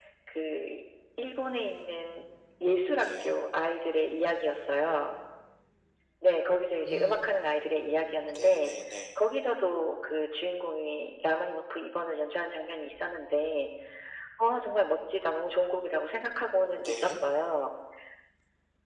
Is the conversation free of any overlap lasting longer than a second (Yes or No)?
Yes